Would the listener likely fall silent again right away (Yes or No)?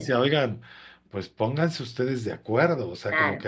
Yes